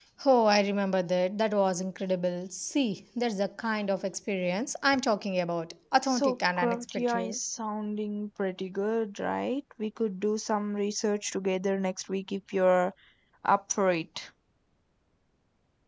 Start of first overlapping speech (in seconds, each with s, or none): 6.0 s